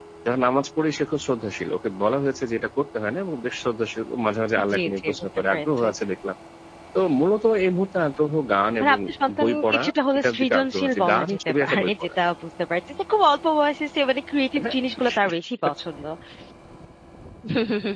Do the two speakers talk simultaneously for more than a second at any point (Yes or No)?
Yes